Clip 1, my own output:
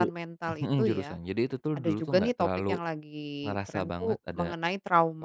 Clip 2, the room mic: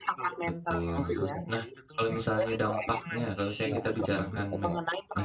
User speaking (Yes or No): Yes